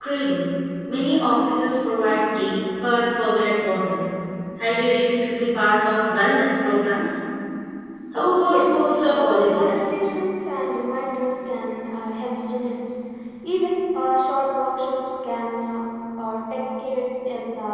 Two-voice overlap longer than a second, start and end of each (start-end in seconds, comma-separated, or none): 8.4-9.8